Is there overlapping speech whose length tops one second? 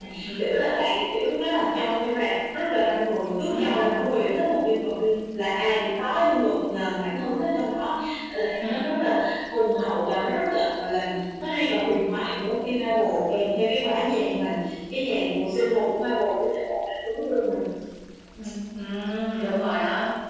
No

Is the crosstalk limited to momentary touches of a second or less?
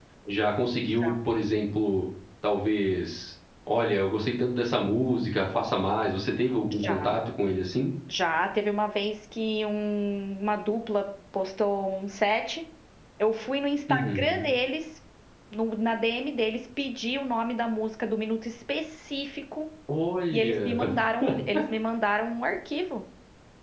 Yes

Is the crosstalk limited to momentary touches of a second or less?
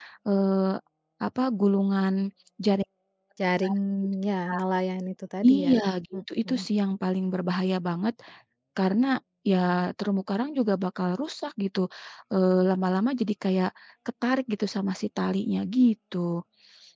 Yes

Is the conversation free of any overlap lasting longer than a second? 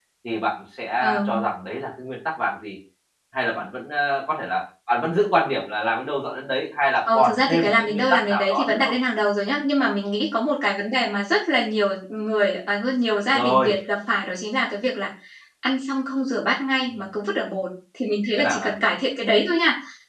No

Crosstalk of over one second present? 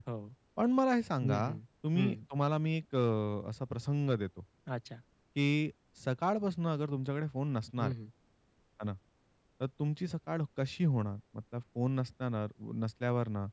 No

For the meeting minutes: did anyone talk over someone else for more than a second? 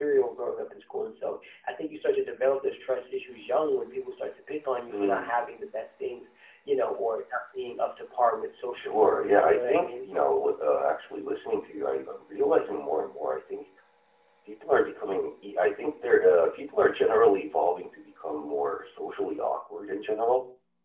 Yes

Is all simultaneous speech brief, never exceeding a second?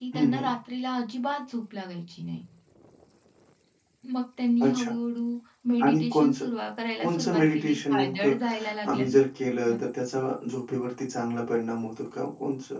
No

